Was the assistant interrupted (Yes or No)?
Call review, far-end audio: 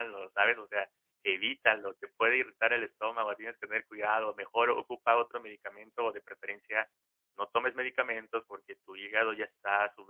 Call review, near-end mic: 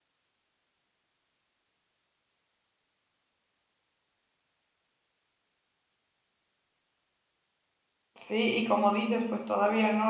Yes